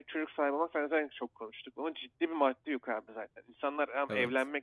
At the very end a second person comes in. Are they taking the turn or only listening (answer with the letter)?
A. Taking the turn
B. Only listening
B